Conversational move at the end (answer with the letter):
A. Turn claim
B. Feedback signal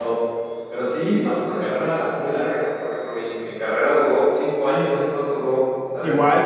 A